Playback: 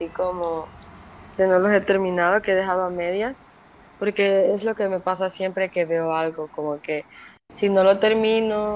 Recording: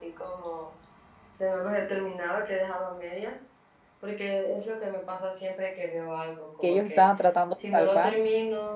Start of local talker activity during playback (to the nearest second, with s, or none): 7 s